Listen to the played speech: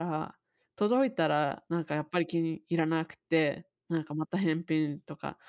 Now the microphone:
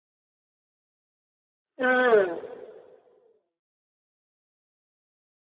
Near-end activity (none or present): present